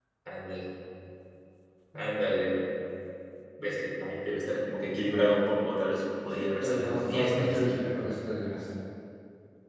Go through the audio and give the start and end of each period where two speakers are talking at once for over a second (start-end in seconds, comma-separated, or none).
6.3-7.9